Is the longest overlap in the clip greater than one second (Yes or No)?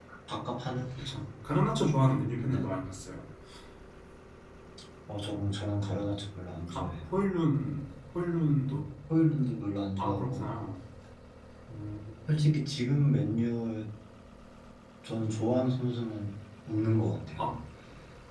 No